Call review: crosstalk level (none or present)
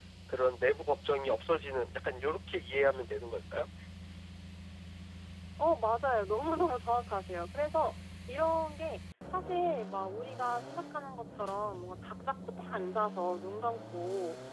none